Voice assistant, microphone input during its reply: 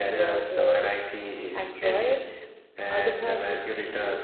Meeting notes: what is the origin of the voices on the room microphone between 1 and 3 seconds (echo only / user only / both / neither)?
both